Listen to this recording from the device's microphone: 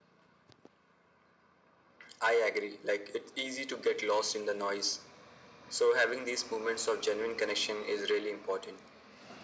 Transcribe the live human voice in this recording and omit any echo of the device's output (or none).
none